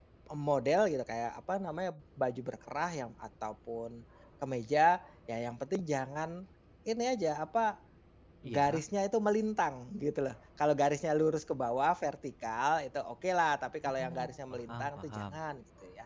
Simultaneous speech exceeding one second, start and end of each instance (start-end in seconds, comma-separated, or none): 13.8-15.4